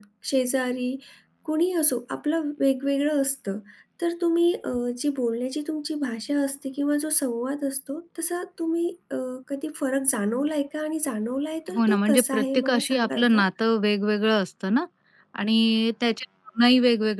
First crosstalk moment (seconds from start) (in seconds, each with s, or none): 11.7 s